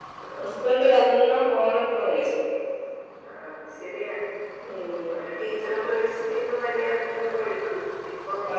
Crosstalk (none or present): none